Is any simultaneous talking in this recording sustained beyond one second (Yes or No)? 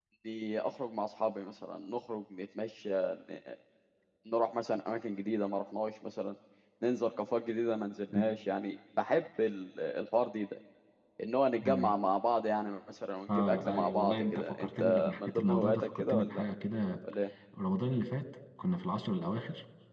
Yes